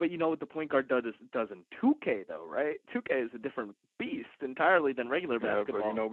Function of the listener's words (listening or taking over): taking over